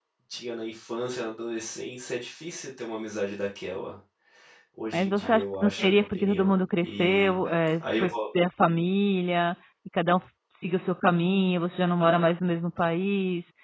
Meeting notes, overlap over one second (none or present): present